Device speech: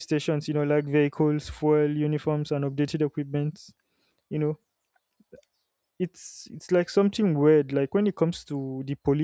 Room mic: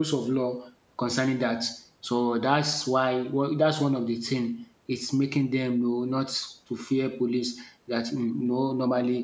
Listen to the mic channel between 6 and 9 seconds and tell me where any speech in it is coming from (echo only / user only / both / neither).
user only